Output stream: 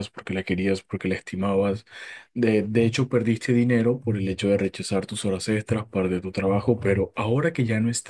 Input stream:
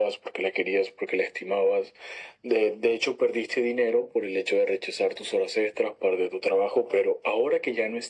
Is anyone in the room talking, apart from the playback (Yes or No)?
No